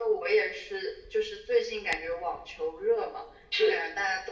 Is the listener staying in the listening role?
Yes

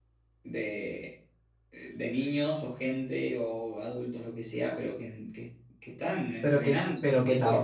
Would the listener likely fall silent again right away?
No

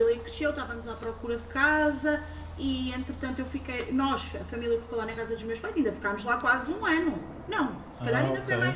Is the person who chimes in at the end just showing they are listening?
Yes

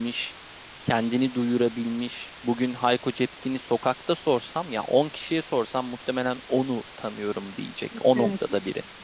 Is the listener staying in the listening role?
No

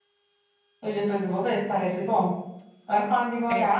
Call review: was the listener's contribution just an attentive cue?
Yes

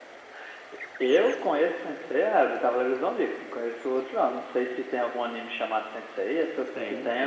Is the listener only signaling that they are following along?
No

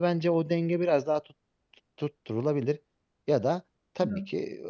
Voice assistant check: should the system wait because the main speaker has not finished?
Yes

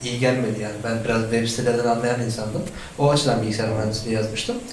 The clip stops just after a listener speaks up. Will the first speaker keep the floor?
Yes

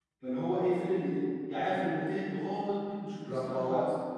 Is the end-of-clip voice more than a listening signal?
No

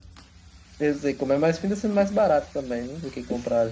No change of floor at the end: No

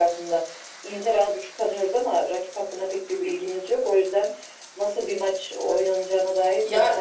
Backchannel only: No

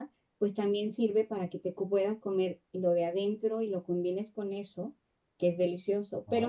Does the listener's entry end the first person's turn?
No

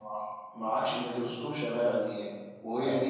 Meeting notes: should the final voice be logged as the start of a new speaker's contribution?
Yes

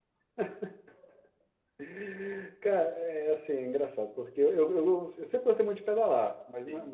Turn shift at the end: No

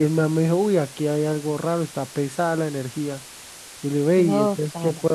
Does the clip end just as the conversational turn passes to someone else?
No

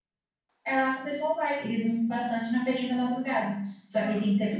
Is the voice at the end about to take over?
No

